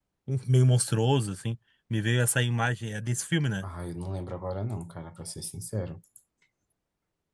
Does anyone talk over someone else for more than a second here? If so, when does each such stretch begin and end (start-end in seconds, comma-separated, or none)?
none